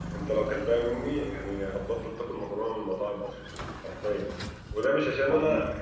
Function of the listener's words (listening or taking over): listening